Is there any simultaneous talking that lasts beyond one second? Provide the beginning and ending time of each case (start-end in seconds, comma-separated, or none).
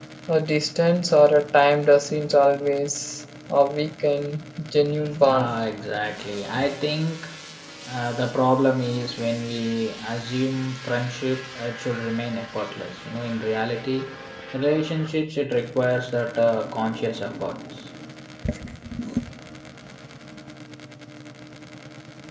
none